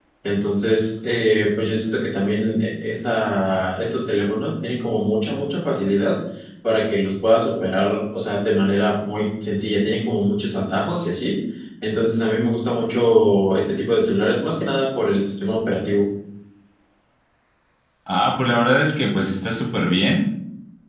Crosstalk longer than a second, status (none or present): none